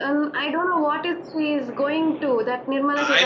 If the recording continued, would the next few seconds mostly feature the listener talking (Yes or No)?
Yes